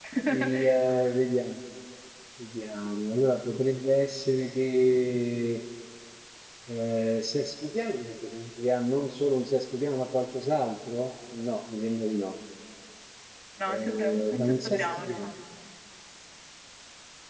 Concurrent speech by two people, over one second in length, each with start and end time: 13.7-15.3

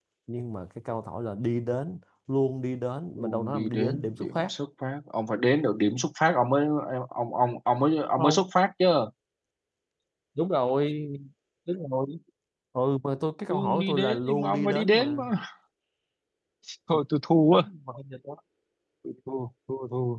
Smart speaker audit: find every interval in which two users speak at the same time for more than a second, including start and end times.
3.2-4.5, 13.5-15.2

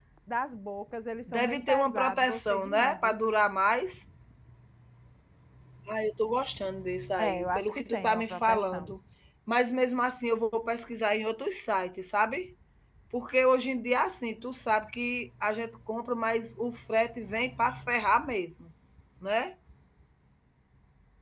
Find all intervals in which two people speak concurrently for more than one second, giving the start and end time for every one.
1.3-3.2, 7.2-8.9

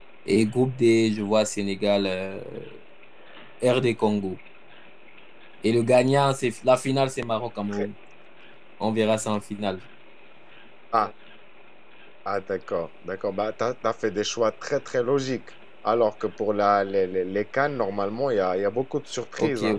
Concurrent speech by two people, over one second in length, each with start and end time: none

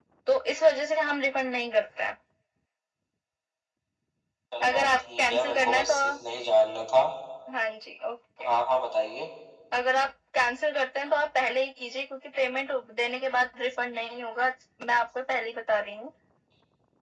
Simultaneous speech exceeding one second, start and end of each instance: 4.7-5.9

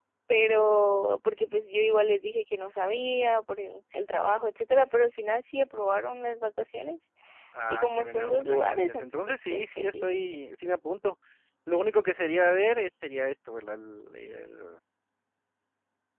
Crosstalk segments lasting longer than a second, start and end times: 7.7-10.1

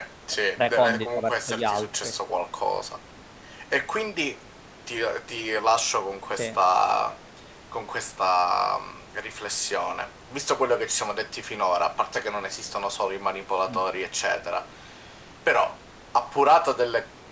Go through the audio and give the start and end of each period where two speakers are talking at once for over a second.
0.7-2.1

